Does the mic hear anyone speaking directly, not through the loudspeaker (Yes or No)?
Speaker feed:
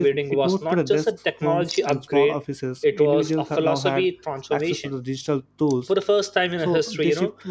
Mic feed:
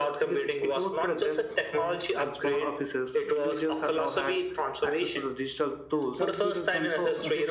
Yes